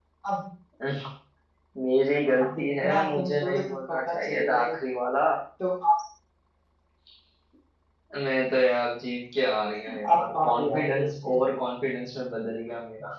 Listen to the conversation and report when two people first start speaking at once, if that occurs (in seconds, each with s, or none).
2.4 s